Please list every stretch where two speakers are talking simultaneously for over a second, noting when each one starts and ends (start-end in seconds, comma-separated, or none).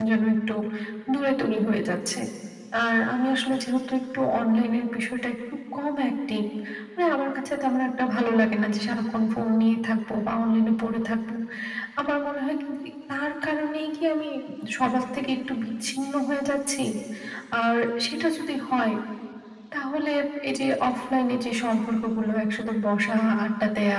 none